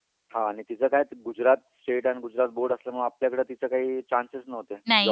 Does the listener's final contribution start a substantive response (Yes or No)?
Yes